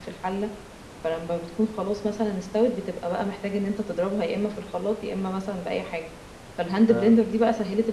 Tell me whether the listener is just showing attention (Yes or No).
Yes